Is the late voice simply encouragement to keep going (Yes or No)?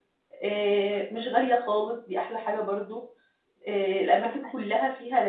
Yes